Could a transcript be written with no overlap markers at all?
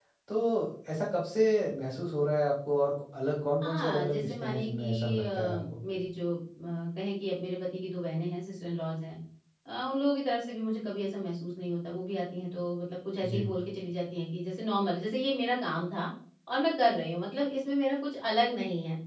No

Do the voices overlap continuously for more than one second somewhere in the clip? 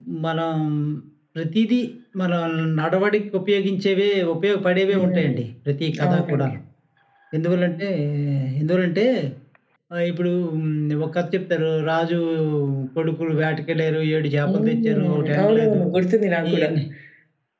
Yes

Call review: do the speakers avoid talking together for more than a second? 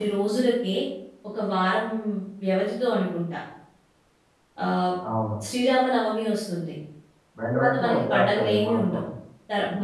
No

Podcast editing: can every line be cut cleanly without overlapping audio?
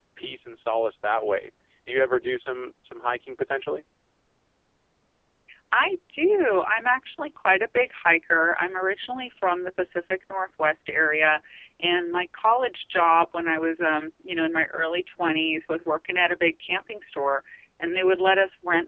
Yes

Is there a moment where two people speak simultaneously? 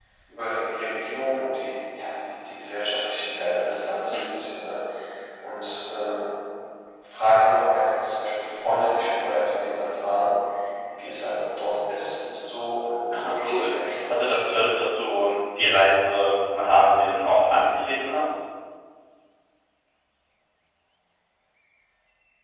Yes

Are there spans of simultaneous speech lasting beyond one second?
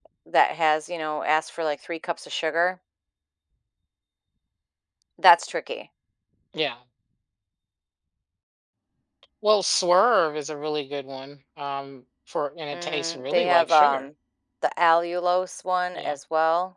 Yes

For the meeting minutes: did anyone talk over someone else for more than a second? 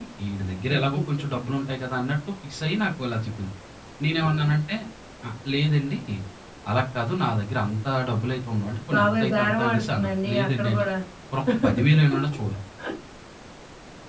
Yes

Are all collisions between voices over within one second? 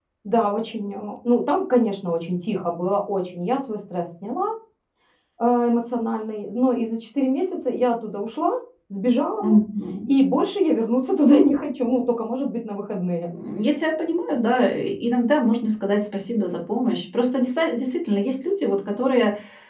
Yes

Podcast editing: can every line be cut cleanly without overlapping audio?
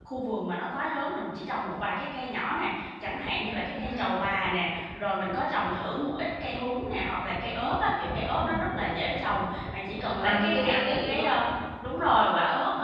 No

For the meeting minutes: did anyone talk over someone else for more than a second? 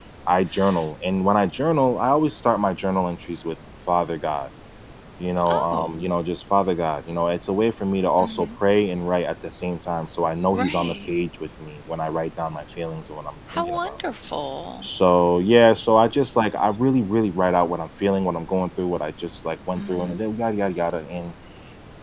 No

